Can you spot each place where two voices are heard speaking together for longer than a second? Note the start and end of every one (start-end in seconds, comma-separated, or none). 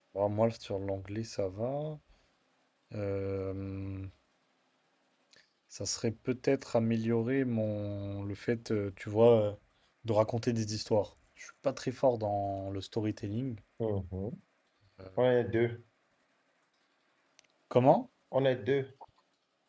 none